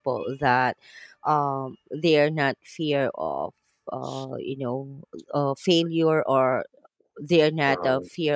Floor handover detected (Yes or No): No